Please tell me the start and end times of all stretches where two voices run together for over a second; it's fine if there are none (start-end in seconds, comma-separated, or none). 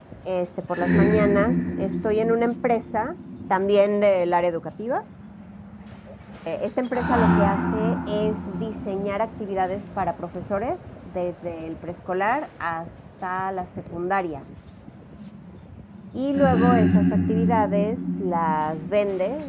none